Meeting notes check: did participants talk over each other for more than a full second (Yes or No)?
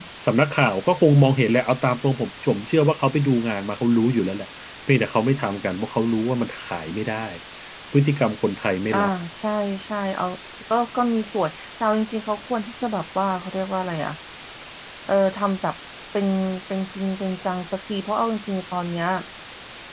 No